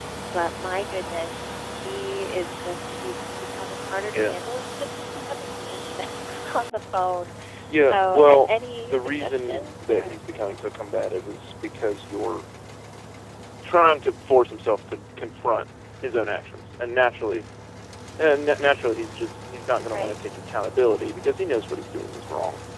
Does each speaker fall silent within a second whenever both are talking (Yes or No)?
No